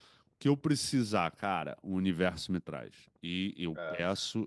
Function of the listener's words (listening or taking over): listening